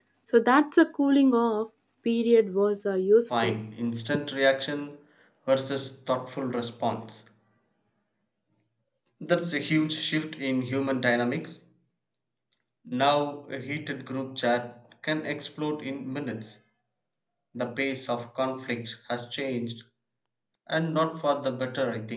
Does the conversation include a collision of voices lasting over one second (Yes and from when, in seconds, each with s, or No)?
No